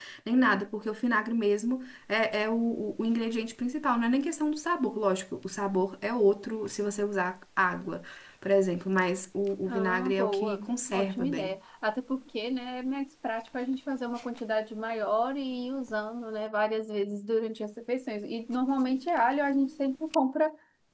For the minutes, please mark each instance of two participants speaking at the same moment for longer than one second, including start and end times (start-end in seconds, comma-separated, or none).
9.7-11.6